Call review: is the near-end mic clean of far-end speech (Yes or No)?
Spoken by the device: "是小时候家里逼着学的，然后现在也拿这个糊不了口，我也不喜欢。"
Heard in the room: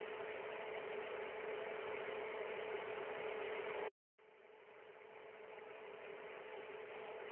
Yes